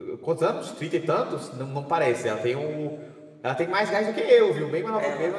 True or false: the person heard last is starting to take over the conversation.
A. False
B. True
B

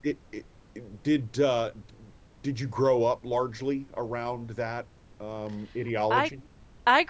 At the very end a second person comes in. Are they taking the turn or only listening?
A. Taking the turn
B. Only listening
A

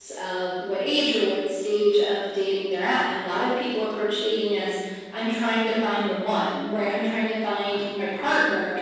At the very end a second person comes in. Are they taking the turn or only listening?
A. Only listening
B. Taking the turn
A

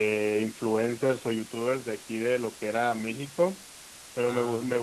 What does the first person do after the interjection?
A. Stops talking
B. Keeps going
B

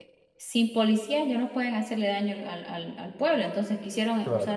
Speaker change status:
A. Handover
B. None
B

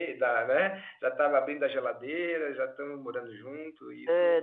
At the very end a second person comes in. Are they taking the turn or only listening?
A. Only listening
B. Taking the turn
B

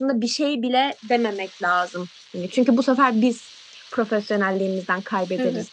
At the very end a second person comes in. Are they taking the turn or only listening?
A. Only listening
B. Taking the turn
B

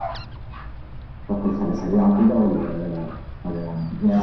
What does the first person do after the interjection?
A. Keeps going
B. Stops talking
B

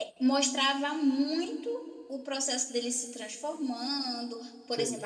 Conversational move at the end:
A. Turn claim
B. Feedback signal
B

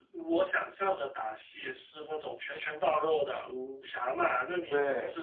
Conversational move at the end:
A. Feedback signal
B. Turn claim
A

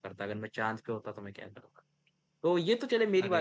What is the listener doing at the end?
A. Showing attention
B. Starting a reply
A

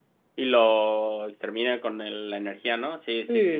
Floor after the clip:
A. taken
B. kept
A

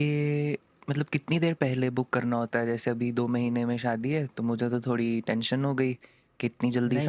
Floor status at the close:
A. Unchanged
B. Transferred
B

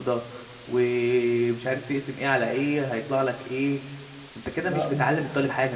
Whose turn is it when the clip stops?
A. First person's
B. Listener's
A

